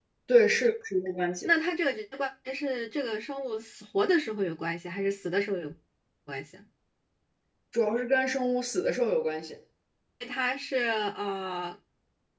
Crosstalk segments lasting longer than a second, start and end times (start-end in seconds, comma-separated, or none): none